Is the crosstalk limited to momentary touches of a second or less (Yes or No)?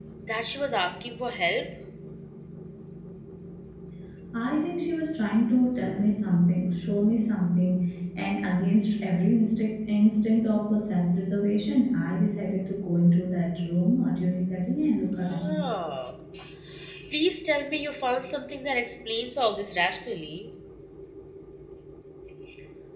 Yes